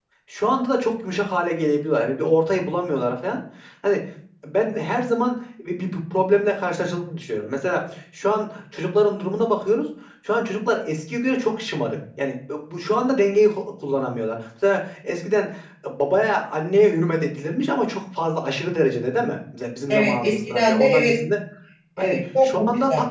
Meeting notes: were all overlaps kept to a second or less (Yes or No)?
No